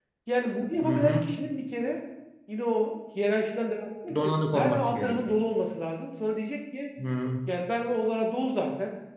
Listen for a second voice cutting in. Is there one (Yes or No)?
Yes